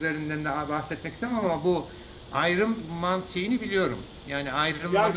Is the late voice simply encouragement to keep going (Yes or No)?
No